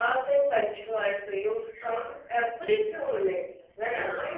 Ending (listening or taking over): listening